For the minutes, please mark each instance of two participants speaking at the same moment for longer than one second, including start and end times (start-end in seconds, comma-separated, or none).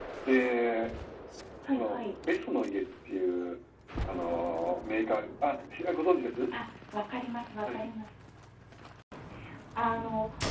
none